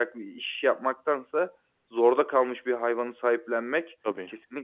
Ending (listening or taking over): listening